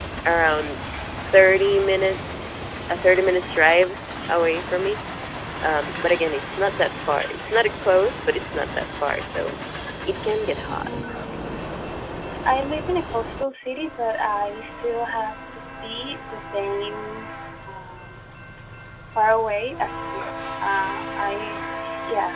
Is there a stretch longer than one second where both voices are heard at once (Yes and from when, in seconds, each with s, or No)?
No